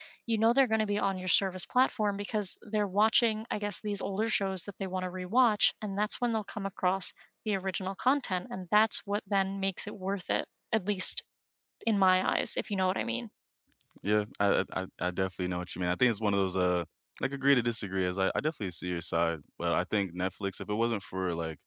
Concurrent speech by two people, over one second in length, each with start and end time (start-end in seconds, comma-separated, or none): none